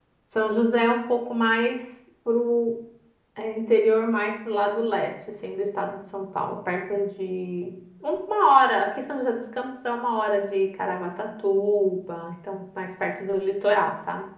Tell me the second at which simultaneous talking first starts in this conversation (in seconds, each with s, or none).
none